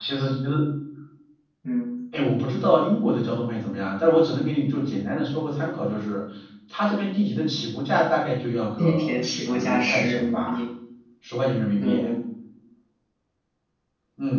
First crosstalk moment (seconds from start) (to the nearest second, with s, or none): 9 s